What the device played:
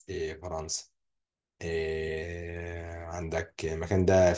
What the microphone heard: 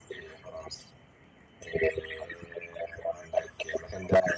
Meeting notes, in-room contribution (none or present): none